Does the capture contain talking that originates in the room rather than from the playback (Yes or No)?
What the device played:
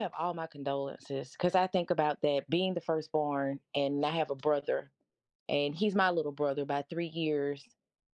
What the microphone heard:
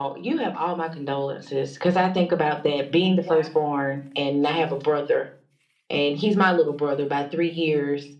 Yes